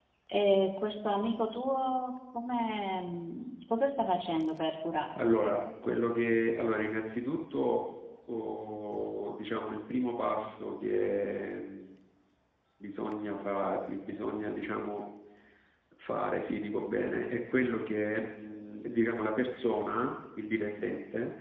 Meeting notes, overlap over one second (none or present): none